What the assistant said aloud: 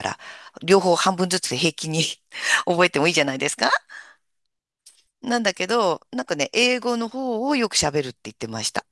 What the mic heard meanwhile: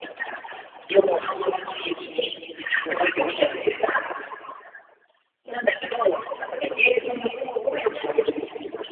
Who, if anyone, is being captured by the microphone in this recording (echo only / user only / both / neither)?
both